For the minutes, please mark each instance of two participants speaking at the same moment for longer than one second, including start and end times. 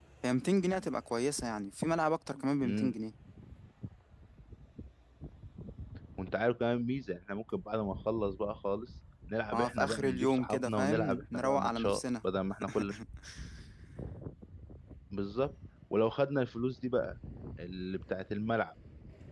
9.5-12.0

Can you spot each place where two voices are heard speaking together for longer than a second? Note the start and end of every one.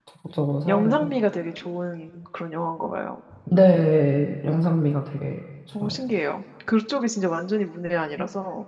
none

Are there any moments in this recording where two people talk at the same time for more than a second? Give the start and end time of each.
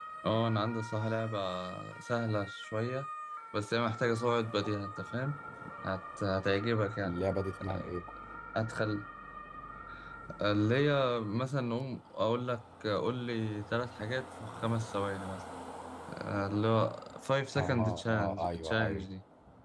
17.6-19.1

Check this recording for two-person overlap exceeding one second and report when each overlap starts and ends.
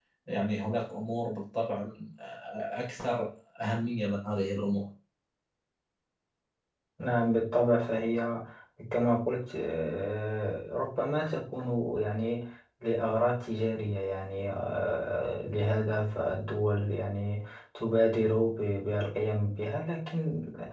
none

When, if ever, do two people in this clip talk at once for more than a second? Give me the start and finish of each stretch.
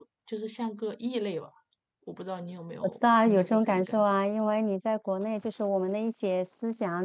2.8-4.0

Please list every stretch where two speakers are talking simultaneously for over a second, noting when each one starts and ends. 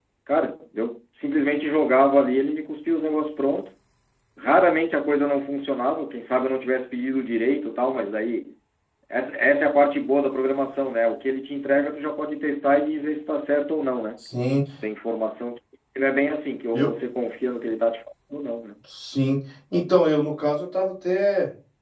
none

